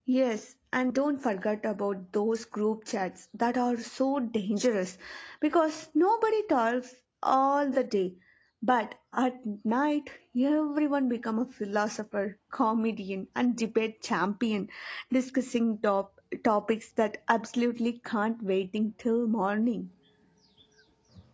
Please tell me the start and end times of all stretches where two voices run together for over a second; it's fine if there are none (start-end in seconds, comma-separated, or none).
none